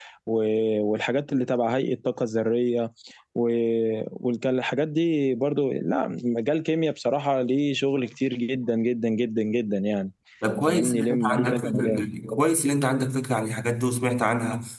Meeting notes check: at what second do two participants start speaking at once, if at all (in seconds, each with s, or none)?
10.7 s